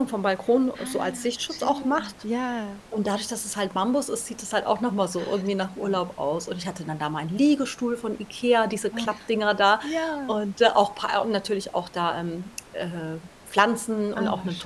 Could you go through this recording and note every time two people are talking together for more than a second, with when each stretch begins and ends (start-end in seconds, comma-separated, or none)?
0.8-2.1